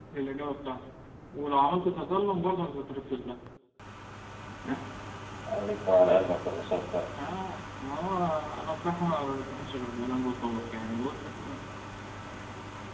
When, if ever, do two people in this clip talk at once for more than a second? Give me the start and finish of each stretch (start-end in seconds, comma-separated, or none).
none